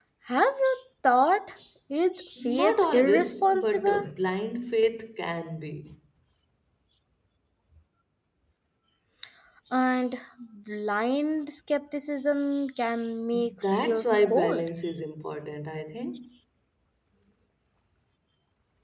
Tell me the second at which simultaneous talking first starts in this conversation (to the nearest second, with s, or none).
2 s